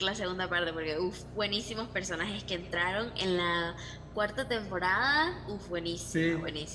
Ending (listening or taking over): listening